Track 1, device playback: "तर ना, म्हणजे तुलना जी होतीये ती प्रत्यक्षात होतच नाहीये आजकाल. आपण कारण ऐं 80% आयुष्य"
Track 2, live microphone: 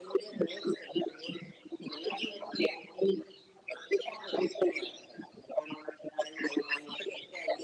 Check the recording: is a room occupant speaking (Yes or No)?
No